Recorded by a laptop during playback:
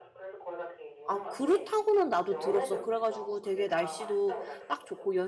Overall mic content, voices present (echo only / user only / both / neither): both